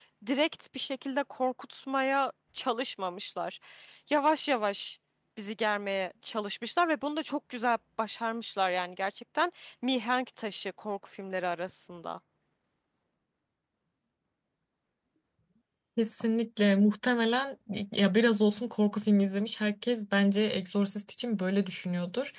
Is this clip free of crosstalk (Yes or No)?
Yes